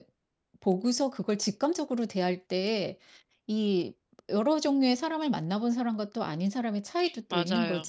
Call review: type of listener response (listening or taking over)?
taking over